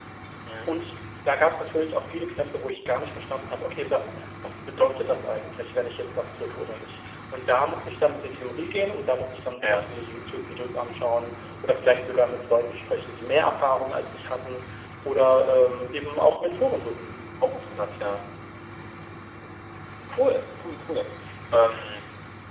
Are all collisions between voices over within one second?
Yes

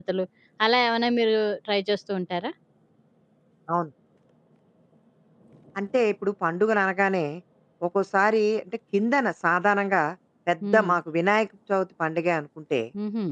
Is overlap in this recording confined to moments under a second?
Yes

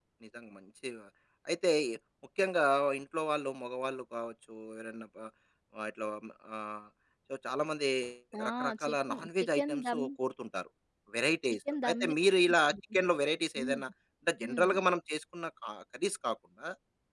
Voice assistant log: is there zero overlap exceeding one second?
No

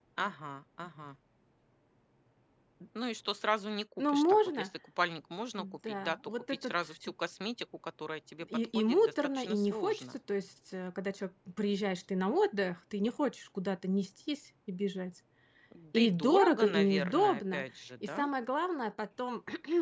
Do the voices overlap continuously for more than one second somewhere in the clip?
Yes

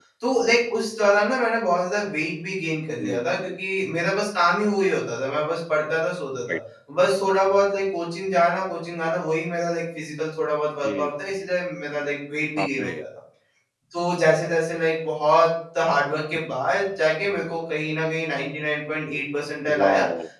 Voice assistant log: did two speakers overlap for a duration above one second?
No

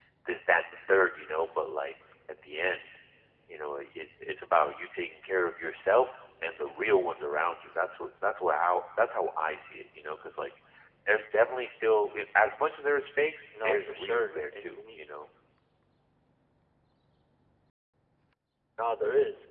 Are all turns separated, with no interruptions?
No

